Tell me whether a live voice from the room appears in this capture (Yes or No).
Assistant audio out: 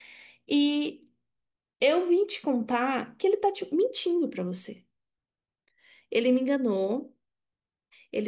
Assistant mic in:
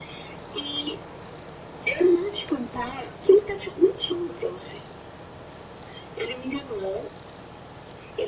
No